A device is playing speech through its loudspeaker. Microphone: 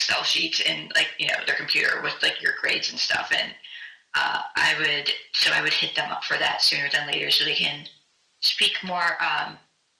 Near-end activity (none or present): none